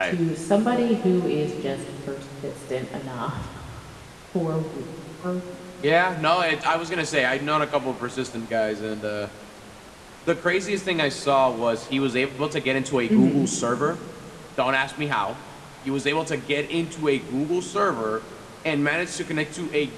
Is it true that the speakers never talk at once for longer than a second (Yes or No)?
Yes